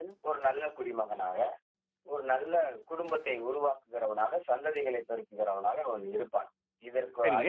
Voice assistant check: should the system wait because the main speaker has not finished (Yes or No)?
No